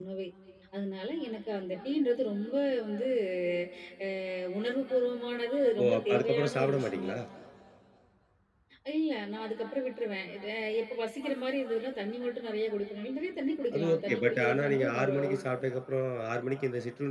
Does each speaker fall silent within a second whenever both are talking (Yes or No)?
No